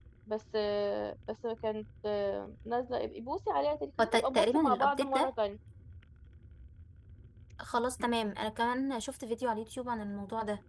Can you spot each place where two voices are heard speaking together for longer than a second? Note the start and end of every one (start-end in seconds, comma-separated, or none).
4.0-5.3